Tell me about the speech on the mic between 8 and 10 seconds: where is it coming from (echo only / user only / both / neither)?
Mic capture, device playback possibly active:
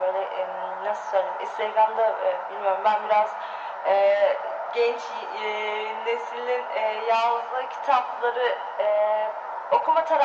echo only